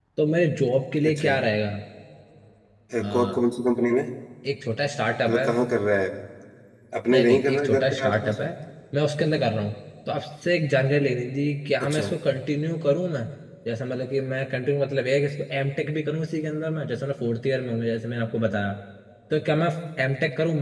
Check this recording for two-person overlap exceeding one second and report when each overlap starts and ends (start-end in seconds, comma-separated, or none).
7.1-8.4